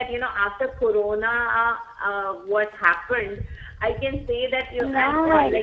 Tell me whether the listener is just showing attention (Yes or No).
Yes